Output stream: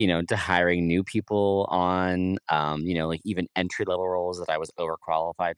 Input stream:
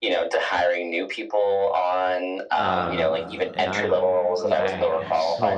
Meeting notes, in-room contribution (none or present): present